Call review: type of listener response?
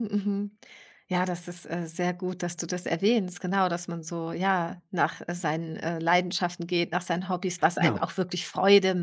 listening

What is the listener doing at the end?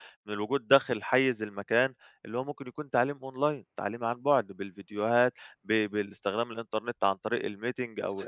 taking over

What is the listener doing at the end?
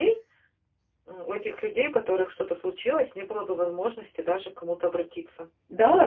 taking over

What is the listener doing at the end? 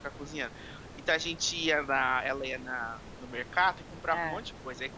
listening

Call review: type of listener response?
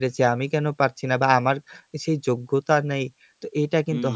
taking over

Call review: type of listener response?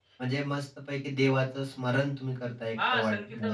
taking over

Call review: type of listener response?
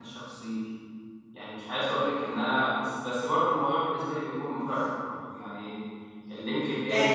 taking over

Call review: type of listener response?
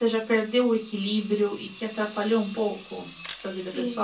taking over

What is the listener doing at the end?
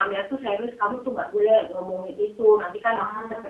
listening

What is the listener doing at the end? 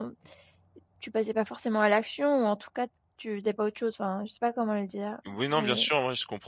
taking over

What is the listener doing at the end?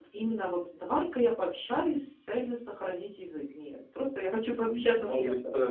taking over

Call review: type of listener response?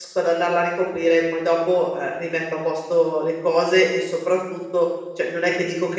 listening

